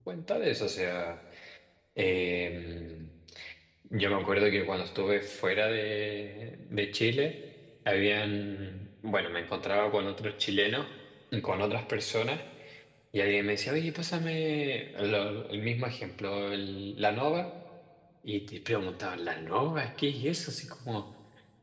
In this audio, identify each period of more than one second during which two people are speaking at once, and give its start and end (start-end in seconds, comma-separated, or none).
none